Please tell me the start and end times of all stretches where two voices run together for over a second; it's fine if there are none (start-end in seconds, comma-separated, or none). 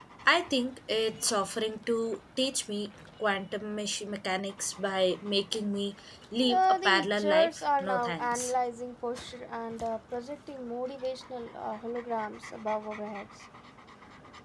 6.5-8.5